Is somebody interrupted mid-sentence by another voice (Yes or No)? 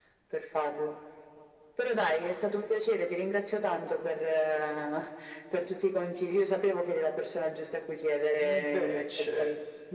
Yes